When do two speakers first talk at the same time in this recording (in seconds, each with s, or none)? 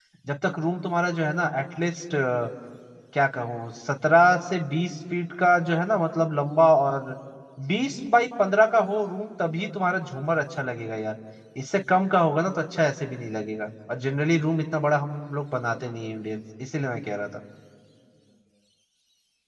none